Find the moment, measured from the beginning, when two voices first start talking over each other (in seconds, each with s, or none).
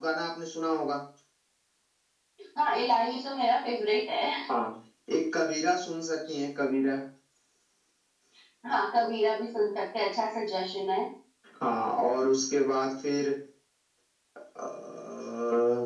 none